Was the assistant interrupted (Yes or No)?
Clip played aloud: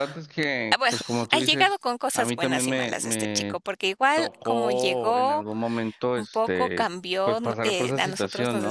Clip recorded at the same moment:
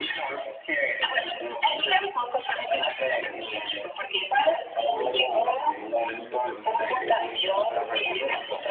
Yes